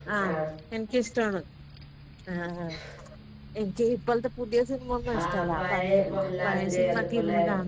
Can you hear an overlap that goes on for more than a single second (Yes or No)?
Yes